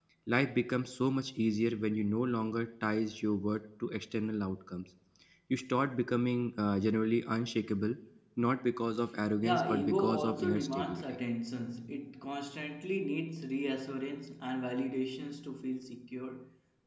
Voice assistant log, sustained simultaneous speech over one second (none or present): present